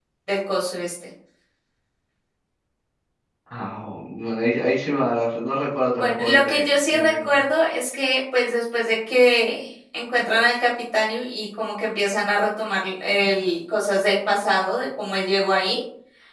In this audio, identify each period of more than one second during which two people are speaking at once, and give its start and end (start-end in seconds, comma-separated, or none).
6.0-7.4